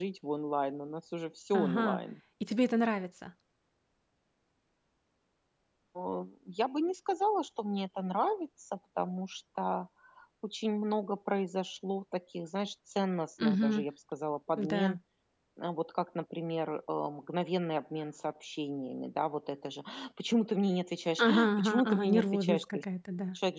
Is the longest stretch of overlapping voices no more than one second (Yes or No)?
No